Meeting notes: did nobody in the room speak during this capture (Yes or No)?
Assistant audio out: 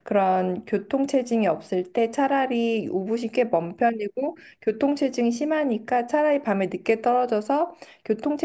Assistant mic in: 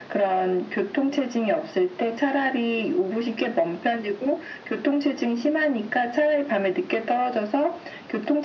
Yes